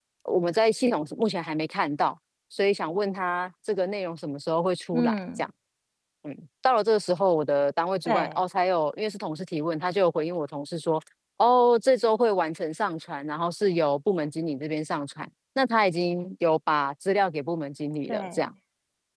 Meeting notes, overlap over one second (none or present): none